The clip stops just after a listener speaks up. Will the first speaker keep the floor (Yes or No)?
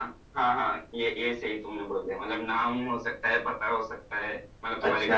No